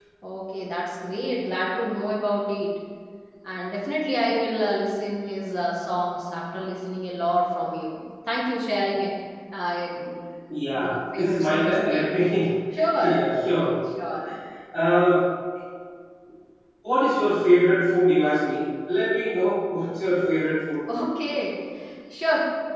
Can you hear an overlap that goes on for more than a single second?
Yes, from 10.8 s

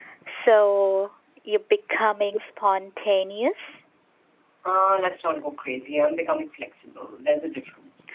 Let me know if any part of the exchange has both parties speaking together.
No

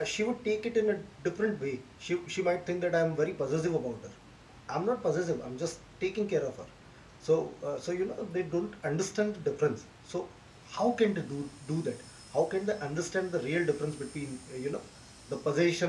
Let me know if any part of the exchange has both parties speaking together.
No

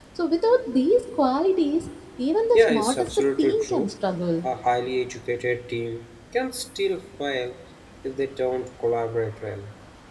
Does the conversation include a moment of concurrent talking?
Yes, from 2.5 s

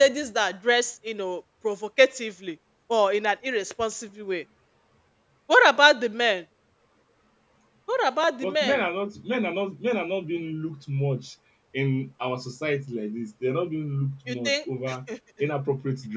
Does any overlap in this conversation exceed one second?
No

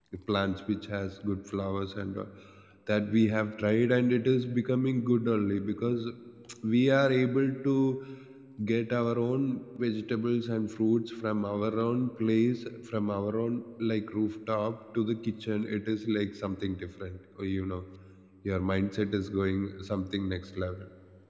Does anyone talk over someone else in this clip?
No

